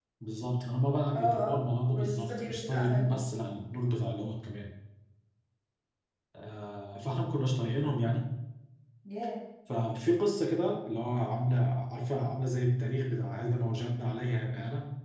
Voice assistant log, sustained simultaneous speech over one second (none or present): present